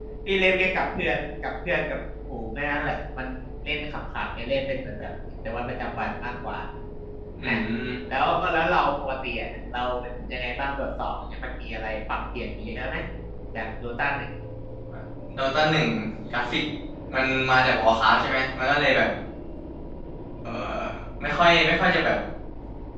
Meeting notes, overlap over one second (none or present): none